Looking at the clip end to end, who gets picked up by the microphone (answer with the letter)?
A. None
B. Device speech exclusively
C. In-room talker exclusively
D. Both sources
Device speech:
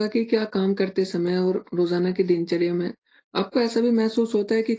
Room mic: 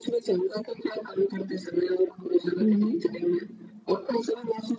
D